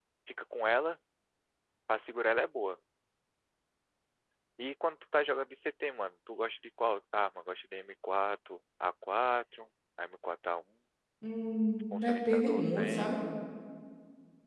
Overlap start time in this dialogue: 12 s

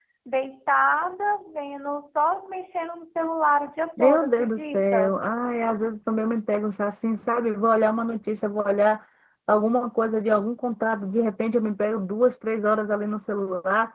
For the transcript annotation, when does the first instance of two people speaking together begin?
4 s

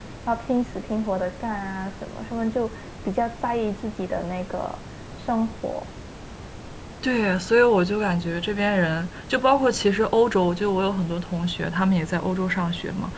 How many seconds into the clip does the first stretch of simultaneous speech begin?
none

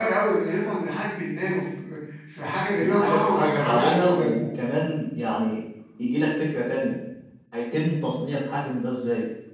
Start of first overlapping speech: 3 s

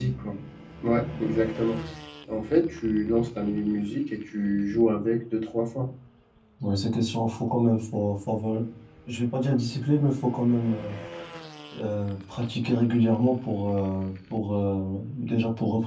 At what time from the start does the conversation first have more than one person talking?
none

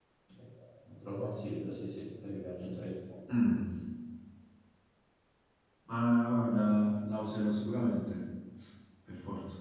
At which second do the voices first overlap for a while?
none

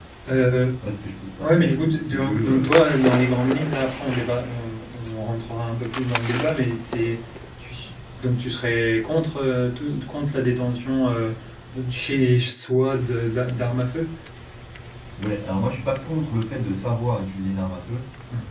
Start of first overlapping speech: 1 s

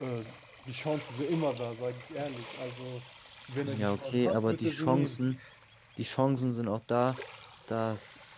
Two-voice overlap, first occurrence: 4 s

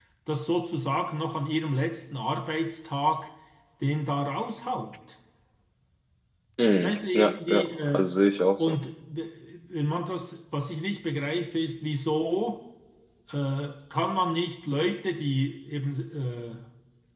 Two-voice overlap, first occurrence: 7 s

